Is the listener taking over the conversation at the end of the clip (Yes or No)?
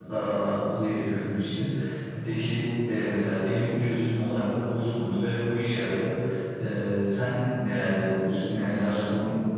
Yes